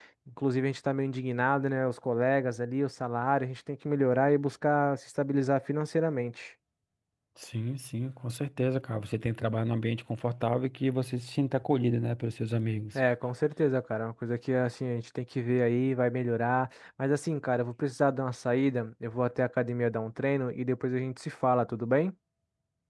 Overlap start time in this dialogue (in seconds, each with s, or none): none